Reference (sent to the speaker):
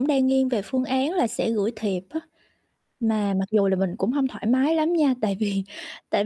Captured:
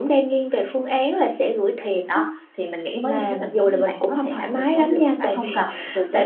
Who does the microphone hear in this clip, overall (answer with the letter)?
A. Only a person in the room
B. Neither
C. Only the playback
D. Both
D